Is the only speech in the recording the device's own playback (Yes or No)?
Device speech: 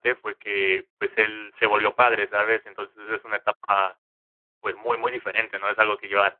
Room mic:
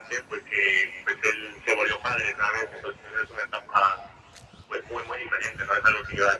Yes